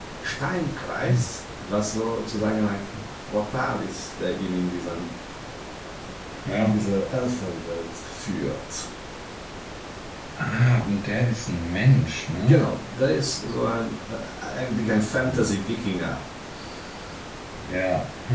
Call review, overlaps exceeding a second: none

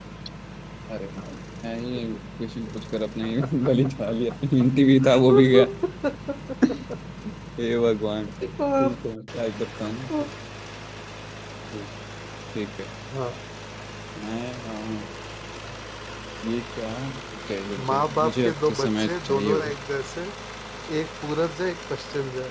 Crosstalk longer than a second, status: present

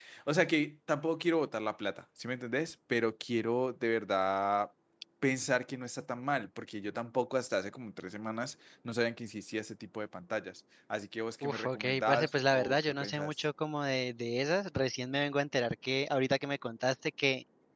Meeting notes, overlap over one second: present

